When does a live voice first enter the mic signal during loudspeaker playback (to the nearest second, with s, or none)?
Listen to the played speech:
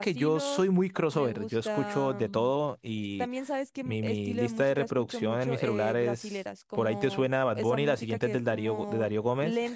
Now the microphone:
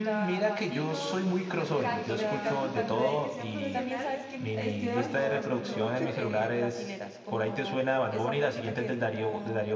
2 s